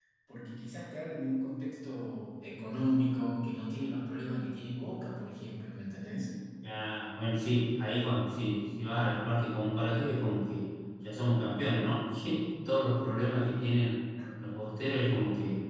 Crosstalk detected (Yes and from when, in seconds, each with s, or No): No